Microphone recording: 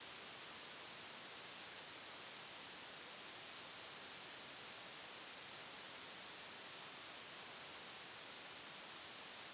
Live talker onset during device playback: none

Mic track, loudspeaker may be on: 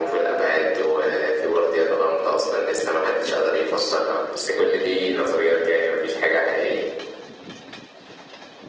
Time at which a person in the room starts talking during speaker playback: none

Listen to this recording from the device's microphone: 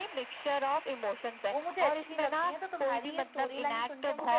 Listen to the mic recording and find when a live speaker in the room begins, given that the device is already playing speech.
1.5 s

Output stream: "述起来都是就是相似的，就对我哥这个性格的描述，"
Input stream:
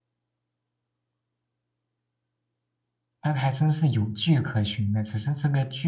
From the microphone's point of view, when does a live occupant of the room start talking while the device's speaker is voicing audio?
3.2 s

